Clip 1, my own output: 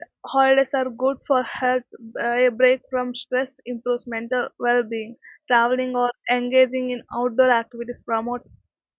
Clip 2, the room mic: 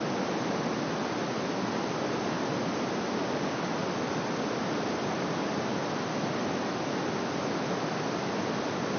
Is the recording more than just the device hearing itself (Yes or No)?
No